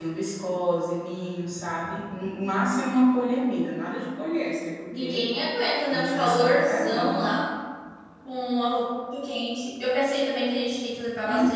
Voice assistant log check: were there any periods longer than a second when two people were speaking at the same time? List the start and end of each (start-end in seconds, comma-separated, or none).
5.9-7.3